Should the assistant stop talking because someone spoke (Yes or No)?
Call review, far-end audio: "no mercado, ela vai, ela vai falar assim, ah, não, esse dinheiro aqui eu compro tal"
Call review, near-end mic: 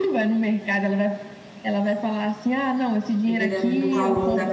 Yes